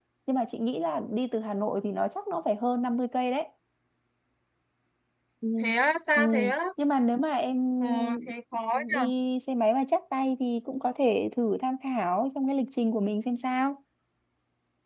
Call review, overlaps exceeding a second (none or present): none